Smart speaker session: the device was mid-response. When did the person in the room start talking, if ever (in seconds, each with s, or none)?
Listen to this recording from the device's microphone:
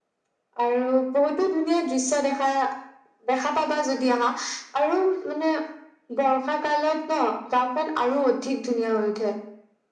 none